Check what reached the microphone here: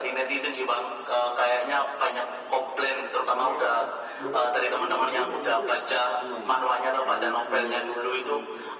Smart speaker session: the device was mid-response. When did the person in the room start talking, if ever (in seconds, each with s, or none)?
3.2 s